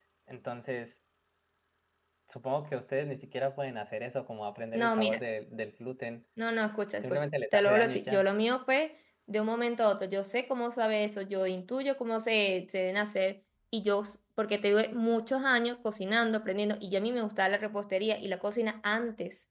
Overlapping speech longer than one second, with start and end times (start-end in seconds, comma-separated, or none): 7.0-8.2